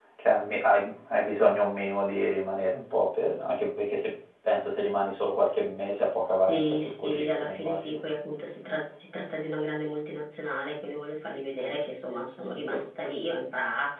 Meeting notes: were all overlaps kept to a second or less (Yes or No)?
No